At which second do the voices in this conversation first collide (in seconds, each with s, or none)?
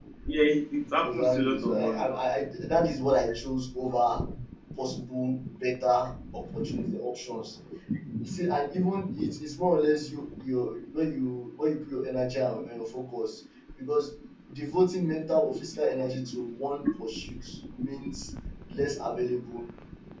1.0 s